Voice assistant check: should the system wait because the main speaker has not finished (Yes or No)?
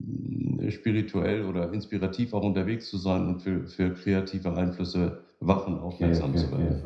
No